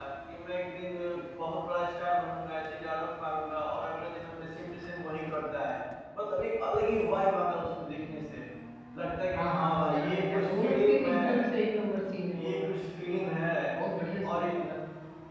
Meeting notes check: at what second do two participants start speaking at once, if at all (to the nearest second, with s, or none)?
9 s